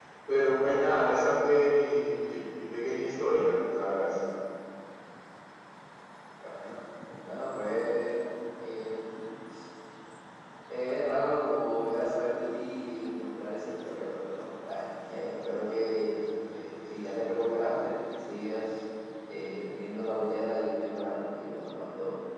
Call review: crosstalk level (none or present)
none